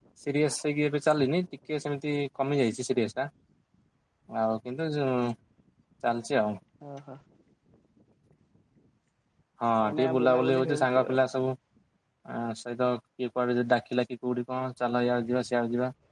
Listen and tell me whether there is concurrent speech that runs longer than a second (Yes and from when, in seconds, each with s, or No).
Yes, from 9.9 s